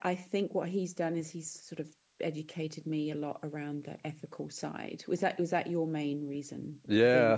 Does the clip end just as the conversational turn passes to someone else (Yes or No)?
Yes